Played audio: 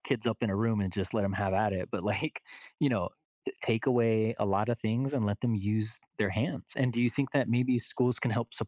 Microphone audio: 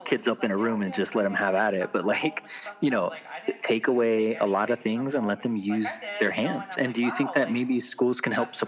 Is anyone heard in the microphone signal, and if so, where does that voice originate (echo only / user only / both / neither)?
both